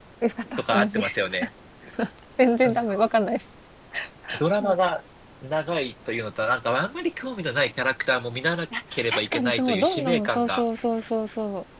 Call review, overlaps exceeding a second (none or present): present